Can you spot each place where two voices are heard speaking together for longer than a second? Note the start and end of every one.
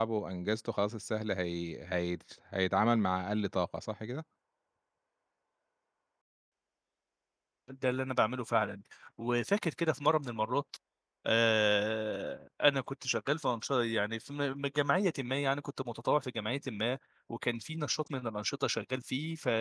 none

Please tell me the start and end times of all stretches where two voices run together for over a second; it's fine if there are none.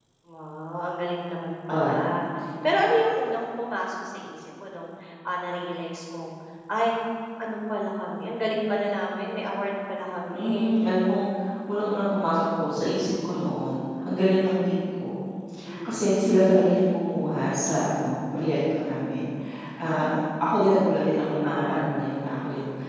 none

